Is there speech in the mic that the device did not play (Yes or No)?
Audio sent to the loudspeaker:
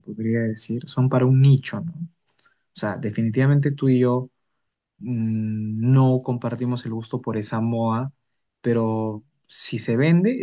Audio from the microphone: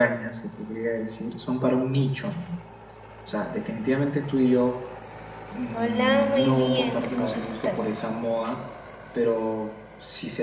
Yes